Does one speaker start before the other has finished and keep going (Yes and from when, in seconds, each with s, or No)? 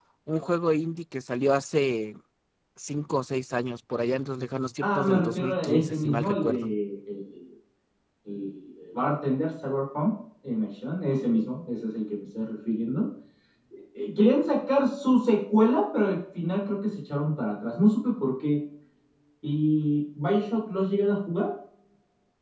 Yes, from 4.8 s